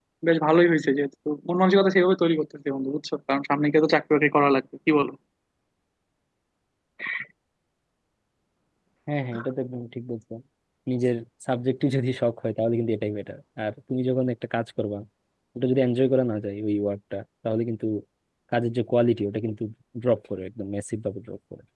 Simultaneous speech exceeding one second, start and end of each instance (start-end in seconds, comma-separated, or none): none